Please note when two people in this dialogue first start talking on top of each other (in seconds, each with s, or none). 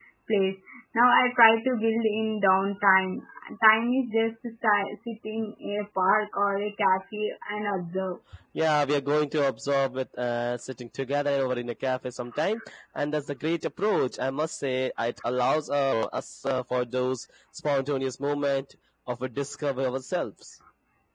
none